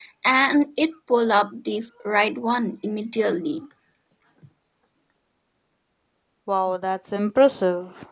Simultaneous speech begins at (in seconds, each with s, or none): none